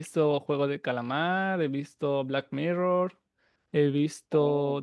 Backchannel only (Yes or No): Yes